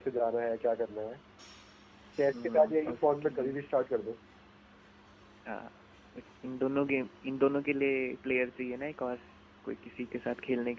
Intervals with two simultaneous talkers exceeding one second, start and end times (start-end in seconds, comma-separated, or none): 2.3-3.6